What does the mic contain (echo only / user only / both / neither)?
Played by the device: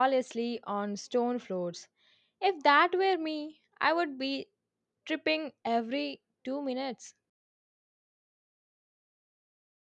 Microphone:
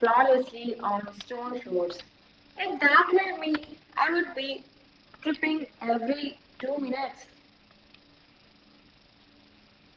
echo only